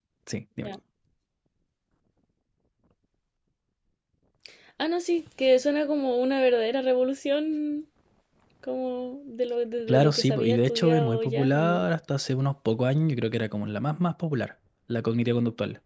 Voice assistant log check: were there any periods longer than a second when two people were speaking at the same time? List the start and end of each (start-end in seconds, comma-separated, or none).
9.9-11.8